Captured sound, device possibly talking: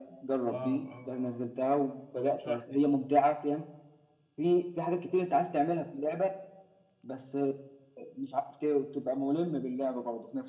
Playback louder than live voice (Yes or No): Yes